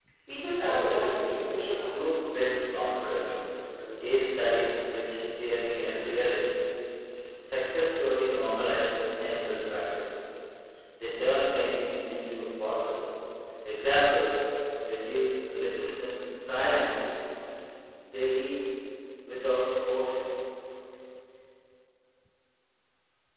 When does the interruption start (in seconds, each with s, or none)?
0.6 s